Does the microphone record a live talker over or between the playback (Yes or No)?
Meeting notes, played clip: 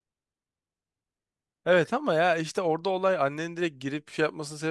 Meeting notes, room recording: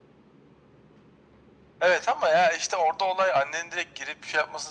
No